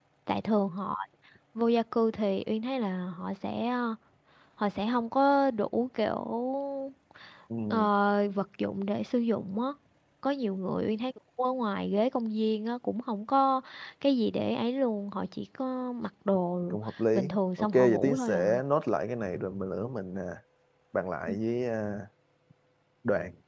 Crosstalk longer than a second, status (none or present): present